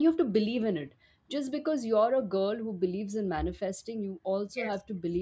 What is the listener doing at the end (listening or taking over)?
listening